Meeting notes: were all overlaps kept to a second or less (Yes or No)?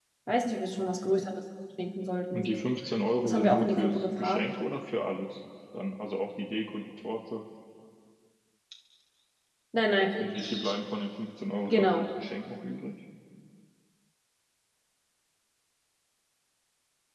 No